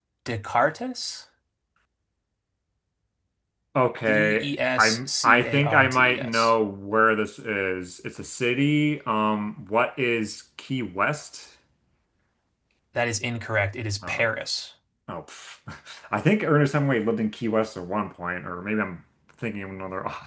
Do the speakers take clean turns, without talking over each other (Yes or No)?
No